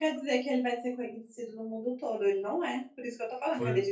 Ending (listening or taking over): taking over